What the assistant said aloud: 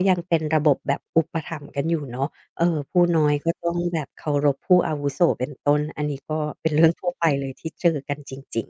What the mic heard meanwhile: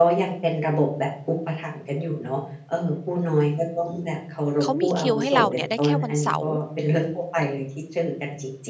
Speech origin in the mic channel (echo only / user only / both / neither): both